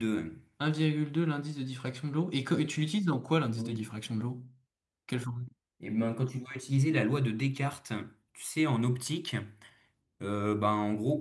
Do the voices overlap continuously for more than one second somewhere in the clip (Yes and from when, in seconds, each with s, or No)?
No